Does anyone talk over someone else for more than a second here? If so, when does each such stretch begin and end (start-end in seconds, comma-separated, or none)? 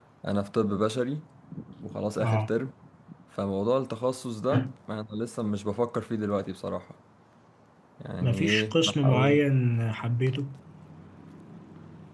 8.2-9.4